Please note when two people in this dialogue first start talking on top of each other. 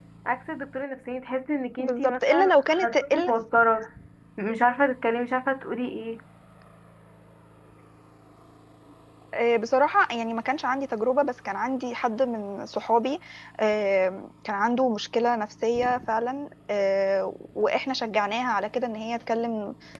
1.8 s

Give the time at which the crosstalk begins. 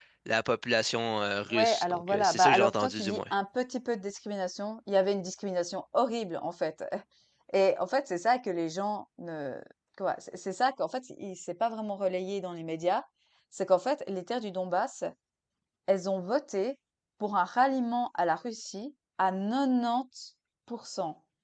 1.5 s

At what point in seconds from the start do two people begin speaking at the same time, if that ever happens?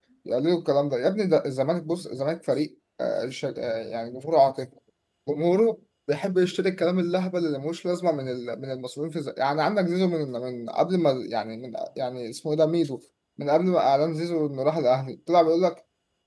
none

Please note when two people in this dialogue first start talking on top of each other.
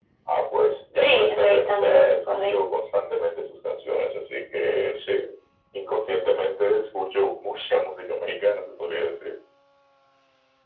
1.0 s

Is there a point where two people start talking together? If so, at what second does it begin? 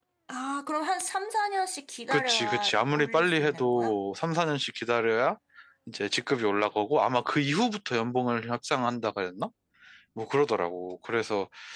2.1 s

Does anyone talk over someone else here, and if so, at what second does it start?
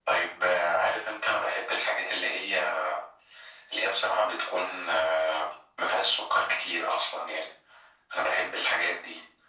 none

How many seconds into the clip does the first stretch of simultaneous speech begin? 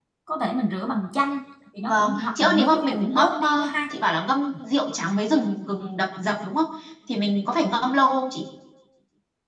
1.8 s

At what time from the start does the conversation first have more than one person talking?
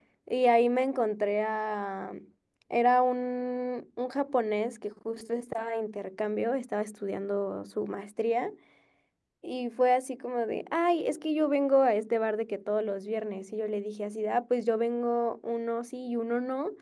none

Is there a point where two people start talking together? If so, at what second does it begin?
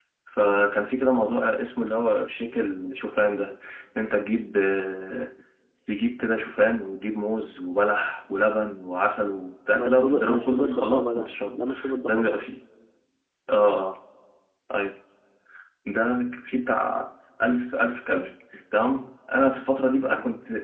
9.7 s

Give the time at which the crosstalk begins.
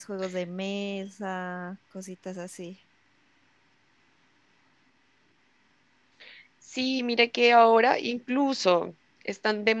none

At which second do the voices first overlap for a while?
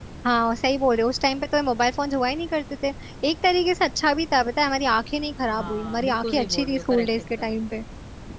5.5 s

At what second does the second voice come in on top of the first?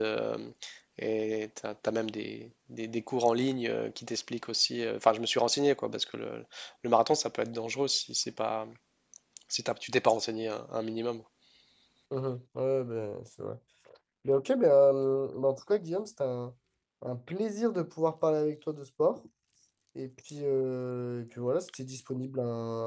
none

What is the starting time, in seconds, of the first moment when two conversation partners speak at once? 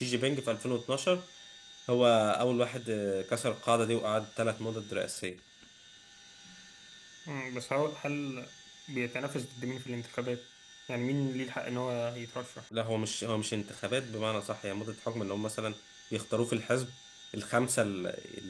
none

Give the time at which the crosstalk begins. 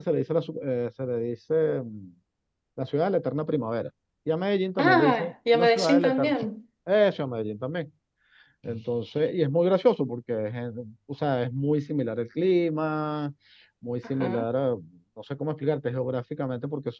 4.8 s

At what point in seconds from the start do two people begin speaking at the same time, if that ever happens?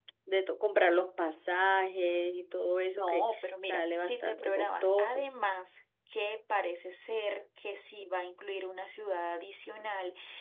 2.9 s

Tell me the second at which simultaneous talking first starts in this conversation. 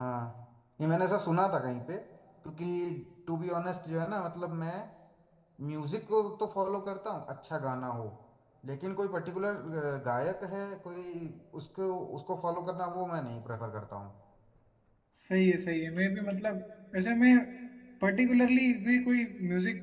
none

